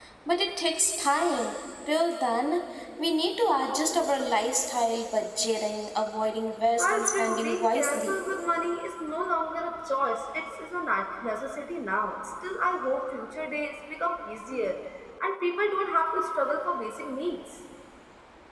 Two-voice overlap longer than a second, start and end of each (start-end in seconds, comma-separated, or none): 6.8-8.2